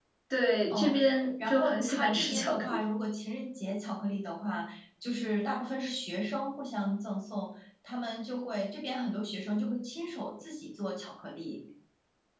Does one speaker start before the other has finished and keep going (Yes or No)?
Yes